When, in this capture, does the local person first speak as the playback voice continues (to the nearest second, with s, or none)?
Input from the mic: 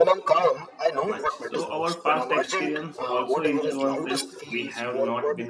1 s